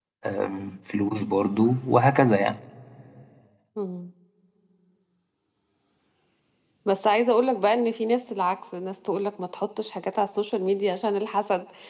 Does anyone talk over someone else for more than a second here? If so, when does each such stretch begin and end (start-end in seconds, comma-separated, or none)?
none